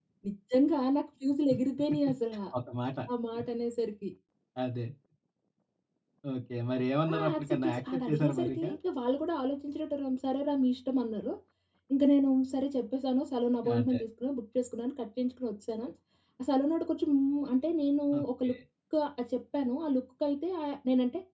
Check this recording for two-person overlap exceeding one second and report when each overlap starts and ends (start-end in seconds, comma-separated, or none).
7.1-8.6